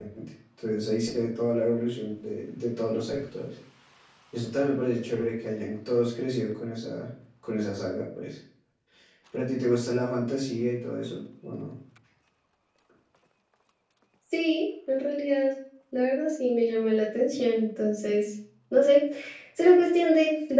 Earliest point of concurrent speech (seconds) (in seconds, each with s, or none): none